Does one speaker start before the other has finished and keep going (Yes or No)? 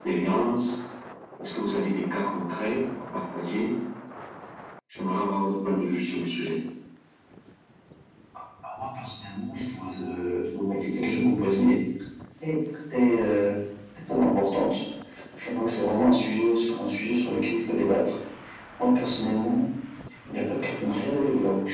No